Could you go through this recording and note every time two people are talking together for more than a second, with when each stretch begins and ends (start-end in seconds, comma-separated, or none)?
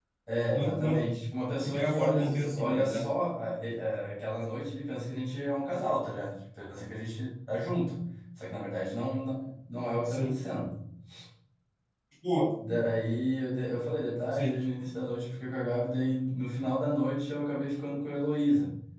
1.6-3.0